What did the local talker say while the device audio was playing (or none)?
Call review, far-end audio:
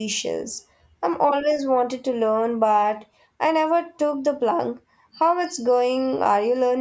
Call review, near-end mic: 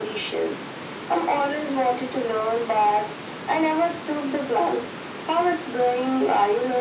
none